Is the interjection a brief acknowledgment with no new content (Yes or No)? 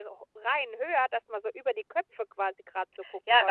No